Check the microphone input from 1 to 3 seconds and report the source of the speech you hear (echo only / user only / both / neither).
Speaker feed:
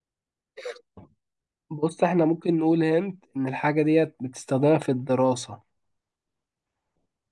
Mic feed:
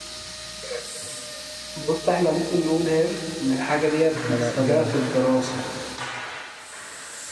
echo only